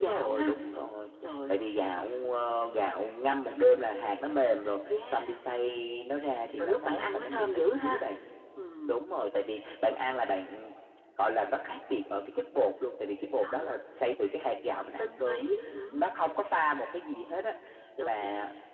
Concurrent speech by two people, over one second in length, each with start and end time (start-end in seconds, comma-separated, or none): 6.6-8.0